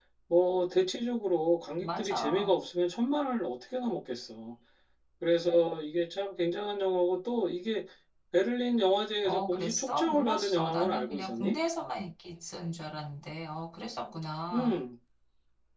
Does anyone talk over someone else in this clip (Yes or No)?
Yes